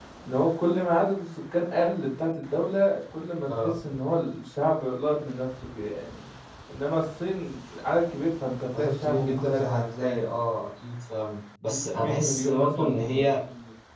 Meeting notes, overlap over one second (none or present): present